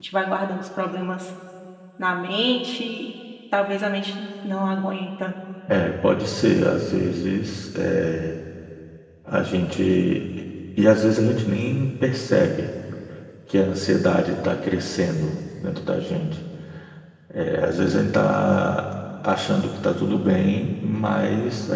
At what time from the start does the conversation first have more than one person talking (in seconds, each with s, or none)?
none